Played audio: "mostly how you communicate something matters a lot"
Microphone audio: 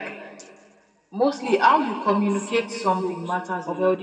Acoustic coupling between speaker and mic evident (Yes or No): Yes